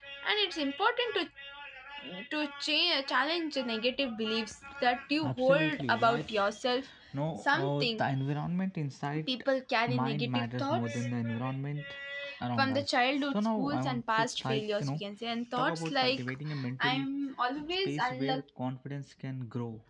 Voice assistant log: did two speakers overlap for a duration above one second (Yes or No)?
Yes